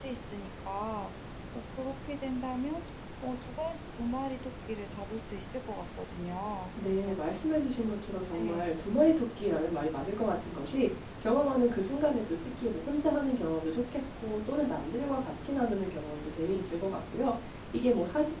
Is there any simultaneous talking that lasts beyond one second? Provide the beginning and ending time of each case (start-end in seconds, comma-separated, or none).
none